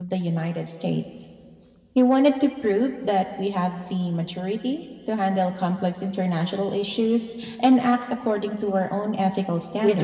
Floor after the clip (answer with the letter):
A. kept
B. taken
B